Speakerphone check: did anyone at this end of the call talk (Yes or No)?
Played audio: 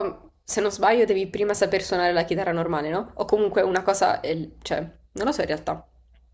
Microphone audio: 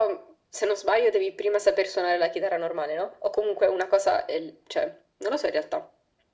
No